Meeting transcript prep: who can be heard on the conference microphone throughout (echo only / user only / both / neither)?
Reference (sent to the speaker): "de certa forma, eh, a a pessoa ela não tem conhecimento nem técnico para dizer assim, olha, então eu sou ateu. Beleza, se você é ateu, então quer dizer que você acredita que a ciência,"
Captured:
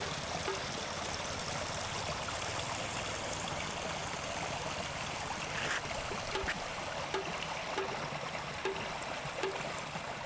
neither